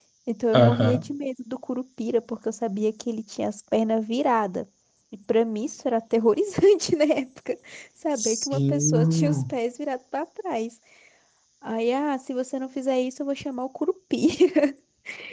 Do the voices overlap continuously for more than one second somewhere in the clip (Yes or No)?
Yes